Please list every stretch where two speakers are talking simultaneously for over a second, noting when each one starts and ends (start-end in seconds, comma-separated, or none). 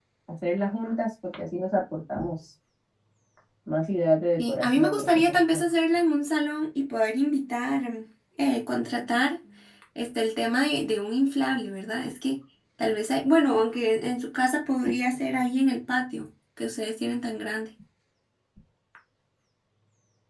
4.4-5.6